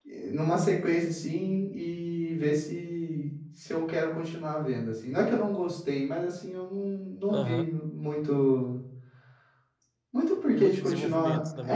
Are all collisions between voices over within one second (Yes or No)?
No